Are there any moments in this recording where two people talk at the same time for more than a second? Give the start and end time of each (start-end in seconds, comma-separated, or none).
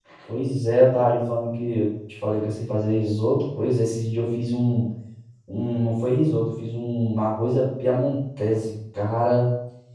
none